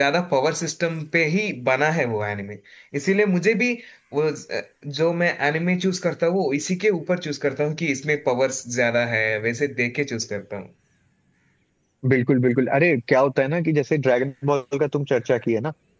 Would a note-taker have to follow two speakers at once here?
No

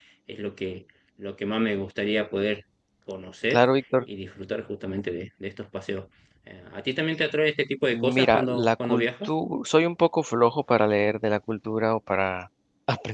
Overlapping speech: Yes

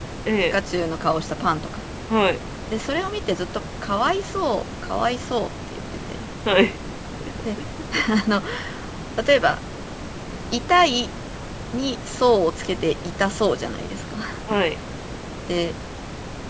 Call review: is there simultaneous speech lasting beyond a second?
No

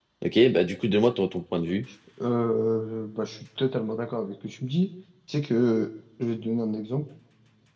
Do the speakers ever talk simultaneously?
No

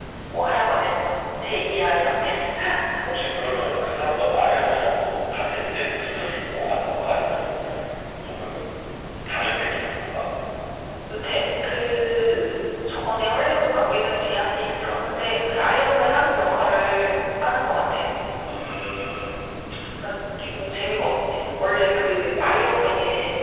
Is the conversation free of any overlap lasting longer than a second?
Yes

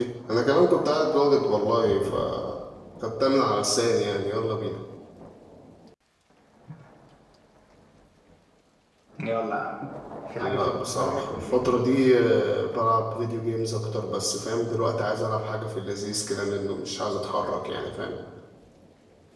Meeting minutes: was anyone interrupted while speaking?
Yes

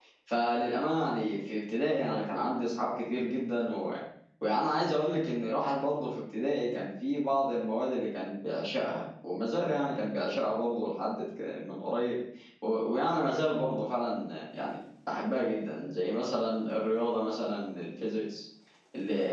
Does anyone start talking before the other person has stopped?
No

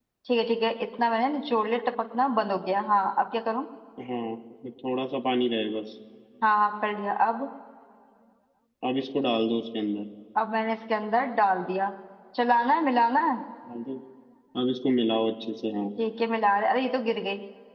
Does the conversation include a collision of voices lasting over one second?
No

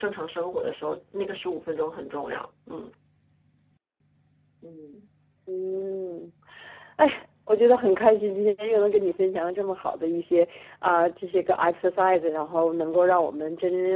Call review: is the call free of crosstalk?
Yes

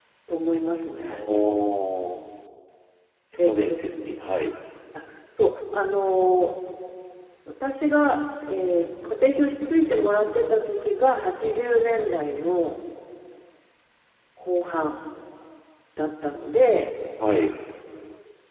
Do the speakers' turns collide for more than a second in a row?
No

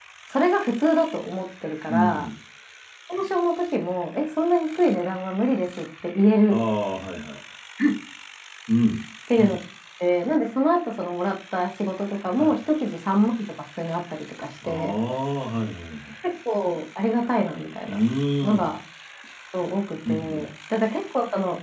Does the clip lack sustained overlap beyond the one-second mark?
Yes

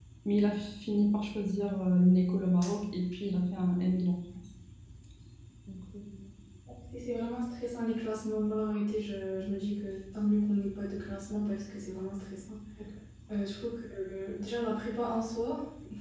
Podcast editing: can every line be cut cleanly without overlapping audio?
Yes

